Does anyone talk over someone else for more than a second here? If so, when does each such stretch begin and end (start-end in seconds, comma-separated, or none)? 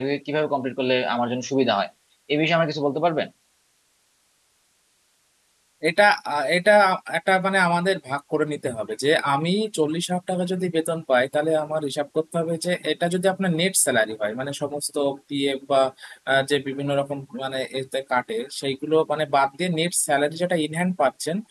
none